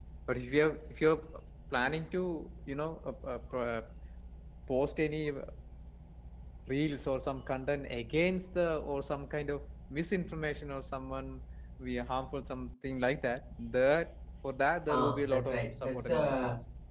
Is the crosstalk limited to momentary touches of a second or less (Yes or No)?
No